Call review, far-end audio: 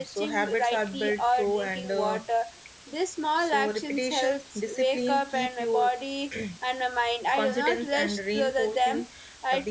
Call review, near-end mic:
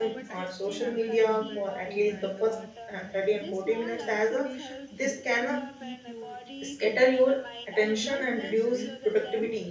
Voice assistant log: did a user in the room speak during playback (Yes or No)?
Yes